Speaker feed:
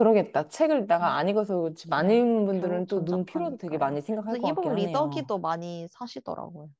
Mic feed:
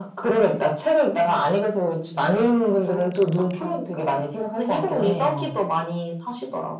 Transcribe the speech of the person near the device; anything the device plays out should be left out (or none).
none